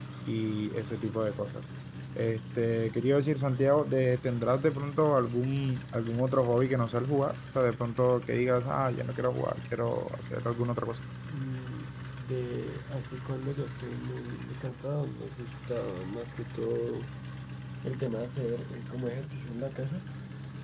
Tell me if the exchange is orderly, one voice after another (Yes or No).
Yes